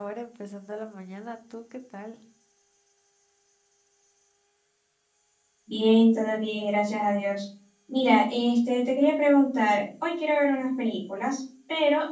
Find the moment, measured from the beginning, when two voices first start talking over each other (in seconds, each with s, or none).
none